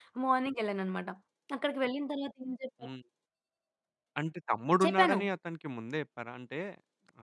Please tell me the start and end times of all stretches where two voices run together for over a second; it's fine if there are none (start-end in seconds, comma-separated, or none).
none